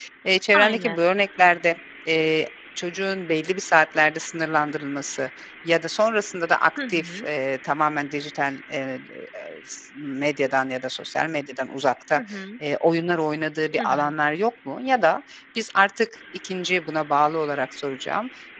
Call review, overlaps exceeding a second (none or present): none